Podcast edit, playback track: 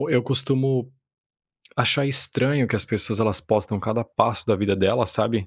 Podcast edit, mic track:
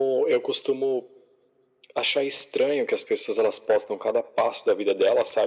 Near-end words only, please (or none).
none